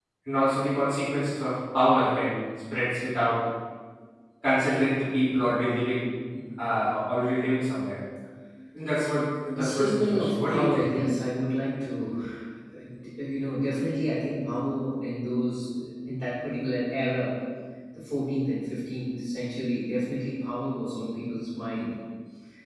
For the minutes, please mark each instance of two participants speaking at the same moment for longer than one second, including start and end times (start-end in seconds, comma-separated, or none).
9.5-10.9